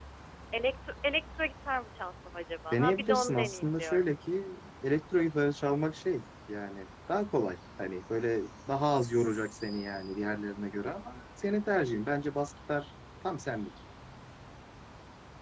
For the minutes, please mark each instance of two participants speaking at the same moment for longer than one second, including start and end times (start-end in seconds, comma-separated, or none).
2.7-4.0